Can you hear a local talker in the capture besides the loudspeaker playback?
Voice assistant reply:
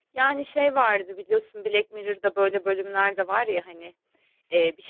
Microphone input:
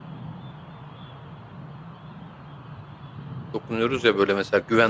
Yes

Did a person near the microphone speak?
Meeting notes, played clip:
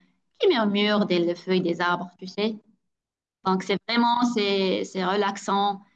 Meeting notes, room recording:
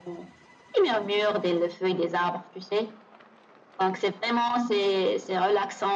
No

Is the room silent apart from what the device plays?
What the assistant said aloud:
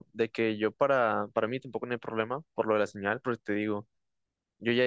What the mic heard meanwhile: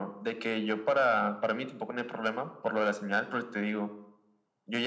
Yes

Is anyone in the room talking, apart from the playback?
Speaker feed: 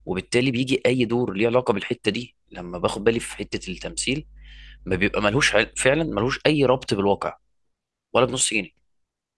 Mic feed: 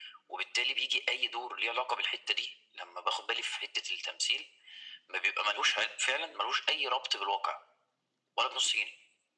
No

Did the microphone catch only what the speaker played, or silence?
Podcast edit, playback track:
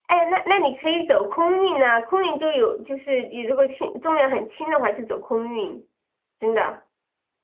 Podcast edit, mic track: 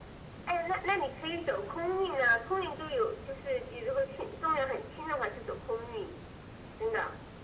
Yes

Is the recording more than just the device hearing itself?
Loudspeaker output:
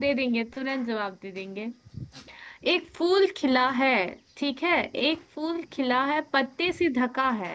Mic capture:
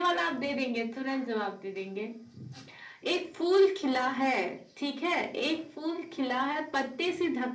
No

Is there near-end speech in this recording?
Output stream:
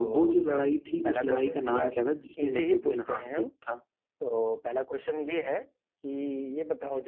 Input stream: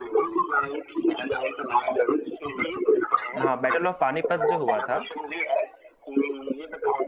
Yes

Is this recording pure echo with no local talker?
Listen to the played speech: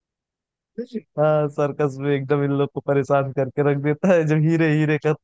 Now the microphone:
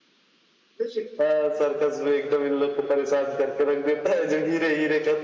Yes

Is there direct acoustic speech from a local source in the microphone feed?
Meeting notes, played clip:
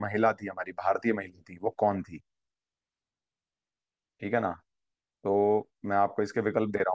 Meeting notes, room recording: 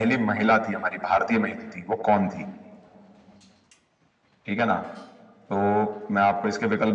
No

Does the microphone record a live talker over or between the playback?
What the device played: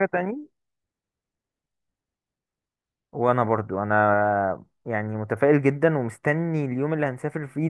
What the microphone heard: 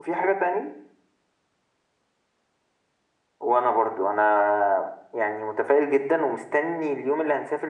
No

